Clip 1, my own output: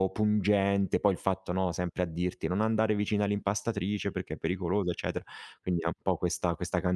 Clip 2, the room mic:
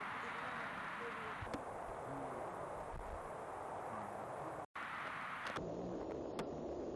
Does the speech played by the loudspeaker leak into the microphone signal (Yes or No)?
No